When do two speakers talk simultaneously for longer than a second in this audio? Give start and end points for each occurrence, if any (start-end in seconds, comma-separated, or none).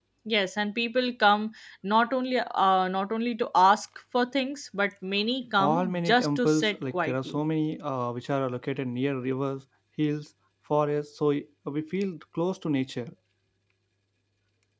5.6-7.4